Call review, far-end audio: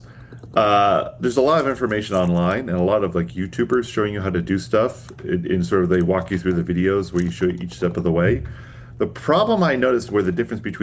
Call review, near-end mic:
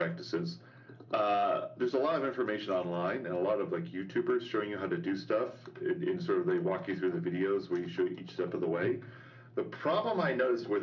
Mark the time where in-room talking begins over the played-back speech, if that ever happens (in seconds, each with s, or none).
none